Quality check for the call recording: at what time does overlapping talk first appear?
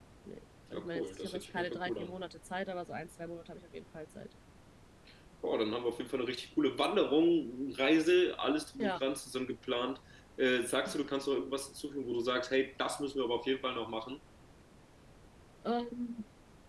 0.7 s

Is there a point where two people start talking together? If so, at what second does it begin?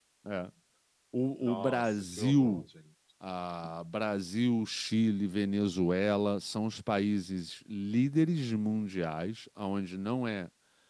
1.4 s

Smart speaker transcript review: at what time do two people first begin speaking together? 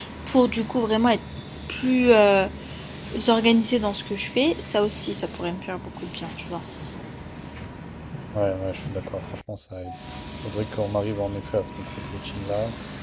none

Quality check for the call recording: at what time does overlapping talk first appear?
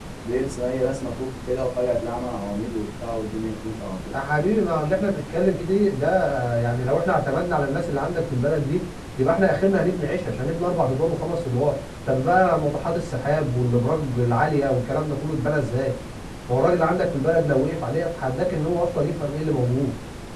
none

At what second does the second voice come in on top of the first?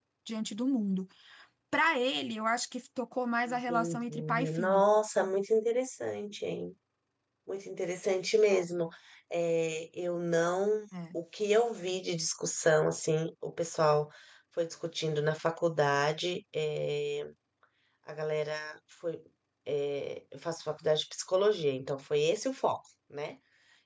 3.5 s

